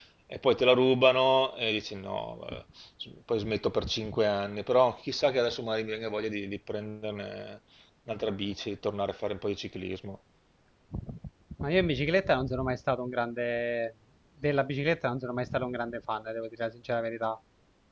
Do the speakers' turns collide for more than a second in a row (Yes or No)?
No